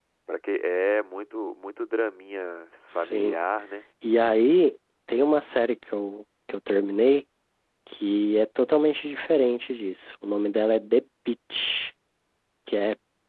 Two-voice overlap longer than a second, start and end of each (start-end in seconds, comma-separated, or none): none